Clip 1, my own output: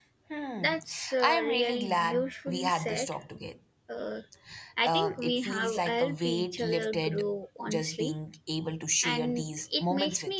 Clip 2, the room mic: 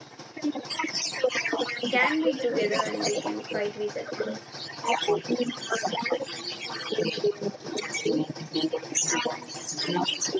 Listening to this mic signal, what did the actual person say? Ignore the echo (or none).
can be together and we can fight with it